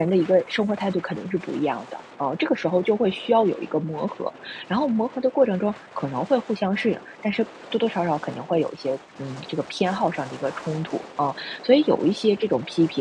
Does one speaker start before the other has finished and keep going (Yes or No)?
No